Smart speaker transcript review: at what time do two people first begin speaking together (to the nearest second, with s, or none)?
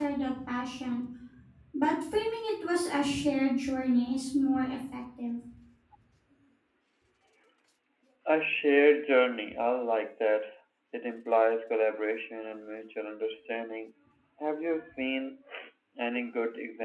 none